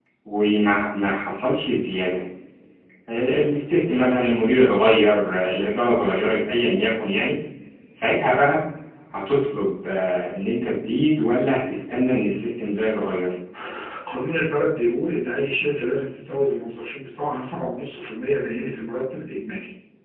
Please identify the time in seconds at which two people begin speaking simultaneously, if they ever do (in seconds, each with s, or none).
none